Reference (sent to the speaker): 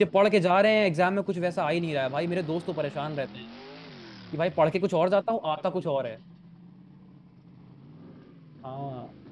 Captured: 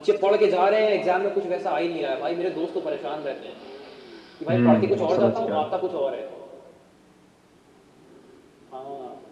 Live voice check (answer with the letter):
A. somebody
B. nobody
A